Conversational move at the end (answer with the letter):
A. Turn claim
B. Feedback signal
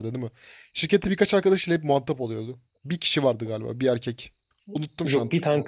A